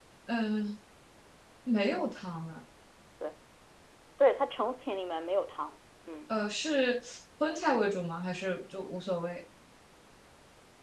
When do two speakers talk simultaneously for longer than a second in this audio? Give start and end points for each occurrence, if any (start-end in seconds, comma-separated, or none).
none